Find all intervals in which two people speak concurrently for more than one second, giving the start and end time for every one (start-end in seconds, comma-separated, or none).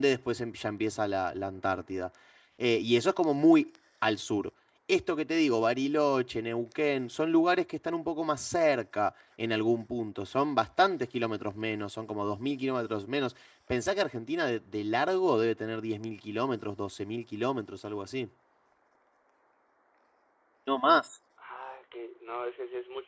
none